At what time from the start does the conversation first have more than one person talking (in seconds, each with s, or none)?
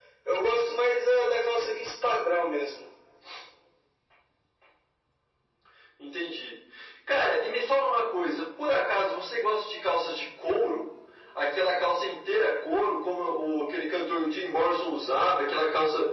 none